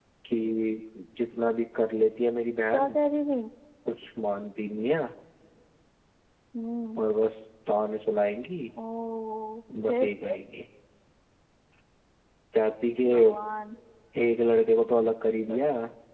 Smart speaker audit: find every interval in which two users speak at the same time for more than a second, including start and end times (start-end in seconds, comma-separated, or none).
none